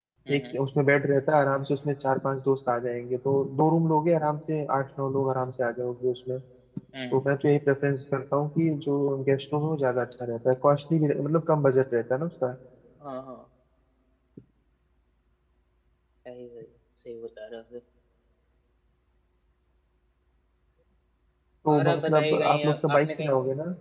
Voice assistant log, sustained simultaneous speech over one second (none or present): present